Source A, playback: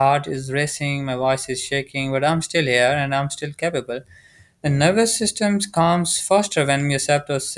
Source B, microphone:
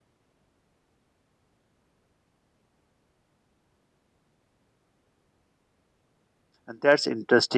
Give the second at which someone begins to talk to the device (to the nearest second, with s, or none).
7 s